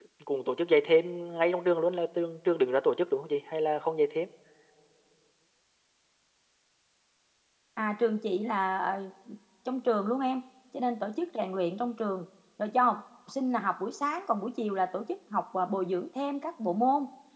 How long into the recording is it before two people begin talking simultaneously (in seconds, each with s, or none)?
none